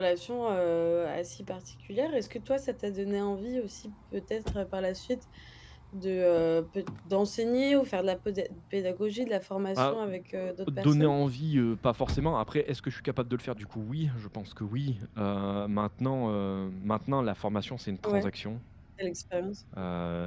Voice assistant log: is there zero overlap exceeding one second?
No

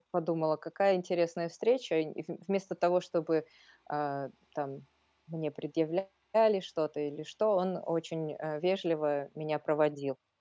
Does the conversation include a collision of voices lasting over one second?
No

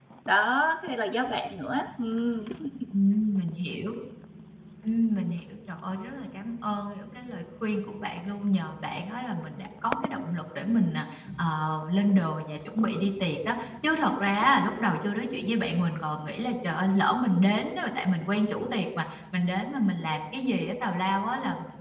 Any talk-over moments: No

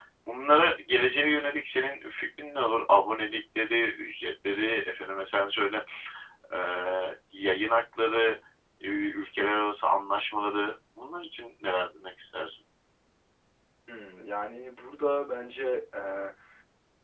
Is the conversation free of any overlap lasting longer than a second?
Yes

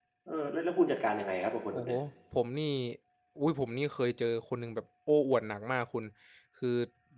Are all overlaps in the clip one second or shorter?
Yes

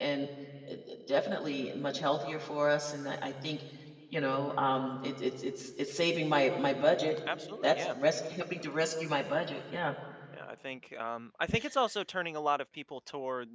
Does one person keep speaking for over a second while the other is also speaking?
No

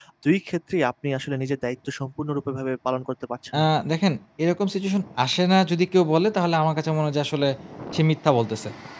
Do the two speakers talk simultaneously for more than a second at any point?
No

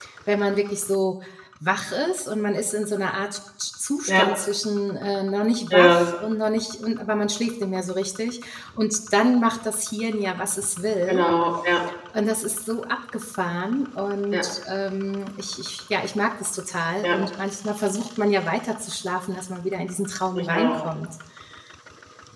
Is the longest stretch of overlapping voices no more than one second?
Yes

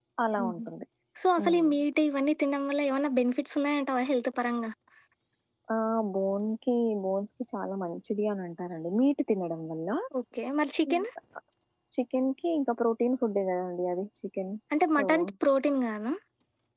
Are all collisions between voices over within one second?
Yes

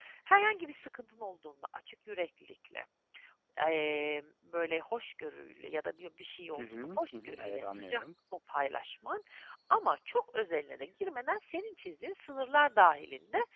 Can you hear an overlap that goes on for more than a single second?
Yes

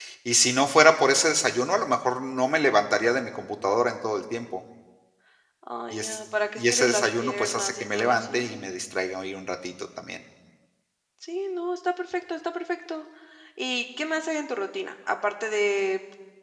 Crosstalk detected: Yes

